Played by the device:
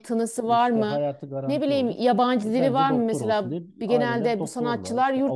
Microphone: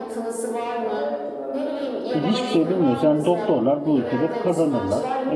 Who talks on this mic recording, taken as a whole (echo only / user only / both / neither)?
both